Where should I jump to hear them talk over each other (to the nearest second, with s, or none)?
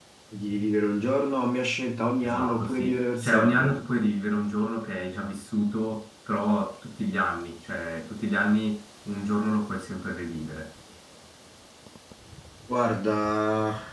2 s